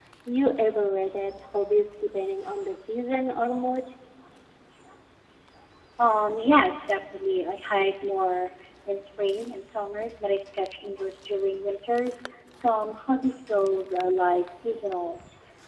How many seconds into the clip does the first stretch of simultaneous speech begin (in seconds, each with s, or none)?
none